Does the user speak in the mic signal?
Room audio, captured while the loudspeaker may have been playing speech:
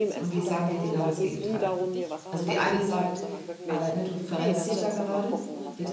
Yes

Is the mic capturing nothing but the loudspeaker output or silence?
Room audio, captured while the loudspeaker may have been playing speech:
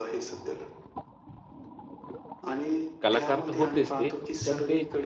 No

